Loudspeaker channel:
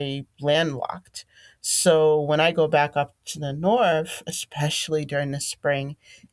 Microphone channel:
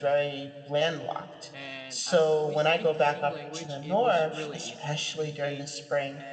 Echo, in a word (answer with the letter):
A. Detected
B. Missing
A